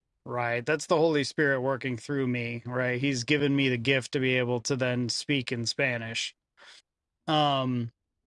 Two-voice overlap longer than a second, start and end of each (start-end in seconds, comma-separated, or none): none